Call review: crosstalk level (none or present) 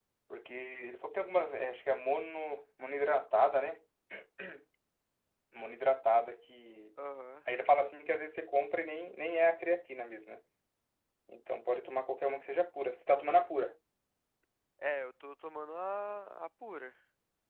none